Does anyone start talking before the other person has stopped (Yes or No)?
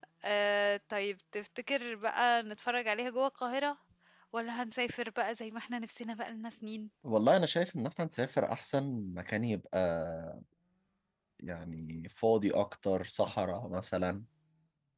No